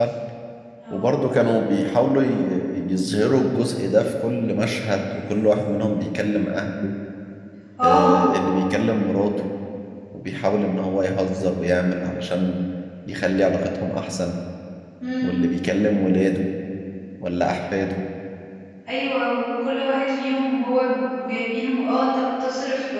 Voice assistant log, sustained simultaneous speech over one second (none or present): none